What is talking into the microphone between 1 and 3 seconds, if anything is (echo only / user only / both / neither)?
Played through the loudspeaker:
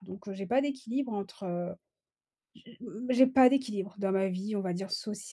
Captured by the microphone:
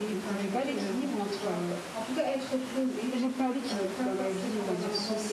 both